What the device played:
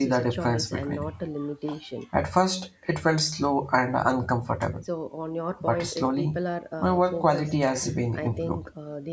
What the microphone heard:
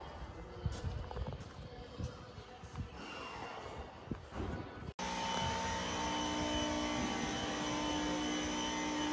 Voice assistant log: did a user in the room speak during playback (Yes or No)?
No